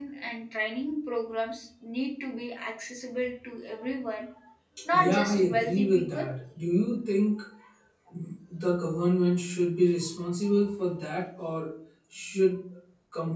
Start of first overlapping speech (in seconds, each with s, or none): 4.9 s